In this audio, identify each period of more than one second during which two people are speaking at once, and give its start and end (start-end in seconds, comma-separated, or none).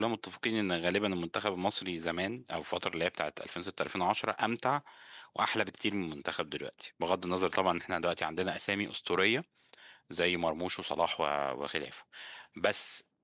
none